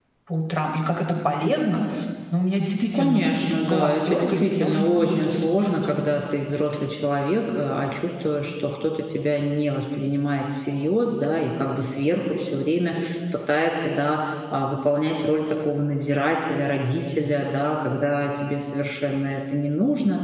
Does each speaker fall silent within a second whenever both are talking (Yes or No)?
No